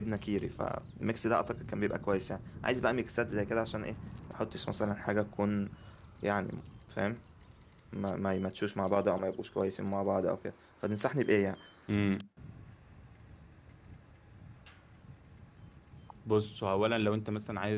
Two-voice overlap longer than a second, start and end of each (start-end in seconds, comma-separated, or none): none